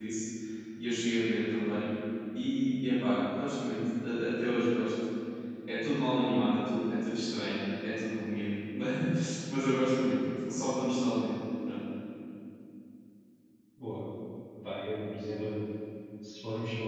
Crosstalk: none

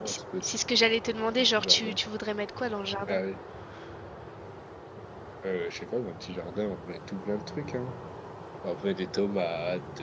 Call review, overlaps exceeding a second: none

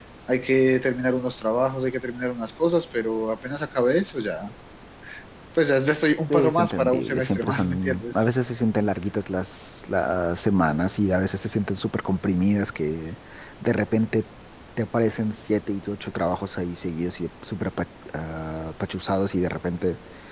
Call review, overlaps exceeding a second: present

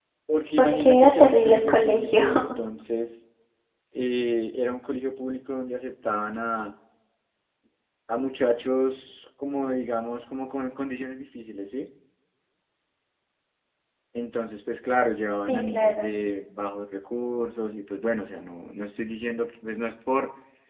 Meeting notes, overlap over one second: present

